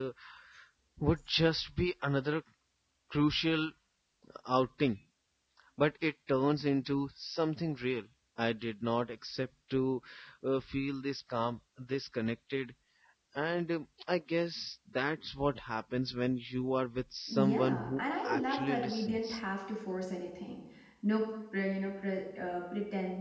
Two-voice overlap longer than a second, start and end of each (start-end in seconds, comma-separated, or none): 17.3-19.4